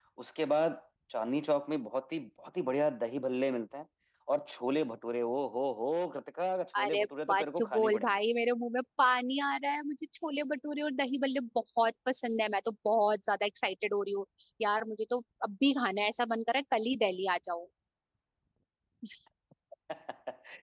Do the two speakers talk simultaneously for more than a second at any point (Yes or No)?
Yes